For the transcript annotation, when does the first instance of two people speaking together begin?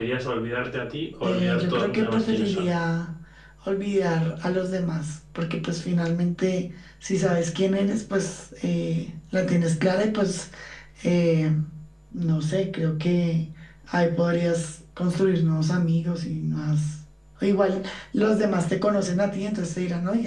1.2 s

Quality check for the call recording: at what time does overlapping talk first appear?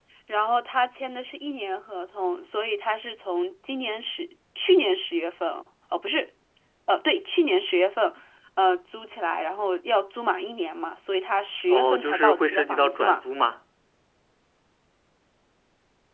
11.7 s

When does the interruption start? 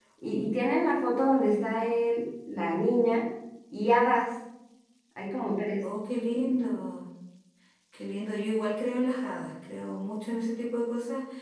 none

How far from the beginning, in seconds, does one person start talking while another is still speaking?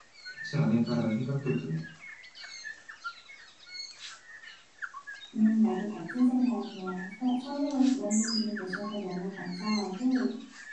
none

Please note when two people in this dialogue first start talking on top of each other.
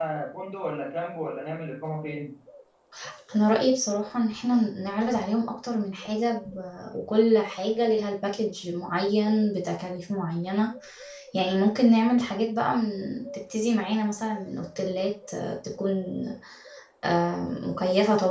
none

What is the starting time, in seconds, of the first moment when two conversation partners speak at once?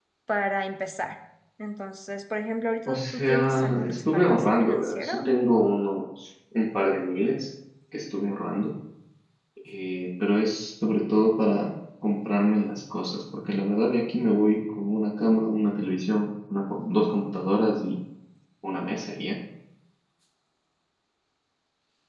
2.9 s

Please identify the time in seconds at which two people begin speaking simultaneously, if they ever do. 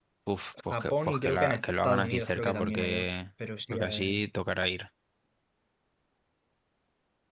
0.7 s

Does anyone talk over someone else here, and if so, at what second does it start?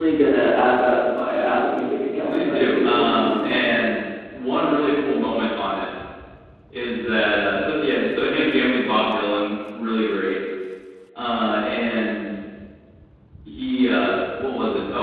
2.3 s

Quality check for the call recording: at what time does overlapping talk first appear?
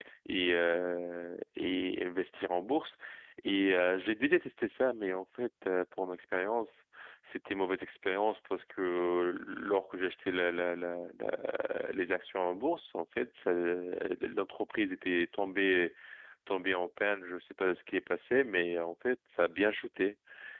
none

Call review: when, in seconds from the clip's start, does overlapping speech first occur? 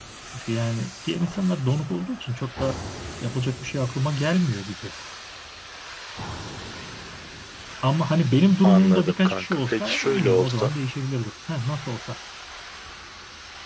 8.6 s

